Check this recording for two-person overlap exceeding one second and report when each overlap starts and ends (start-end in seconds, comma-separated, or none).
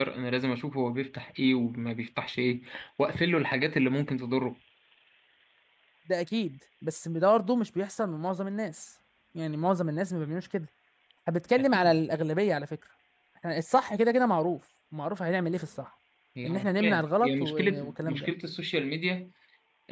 16.4-18.3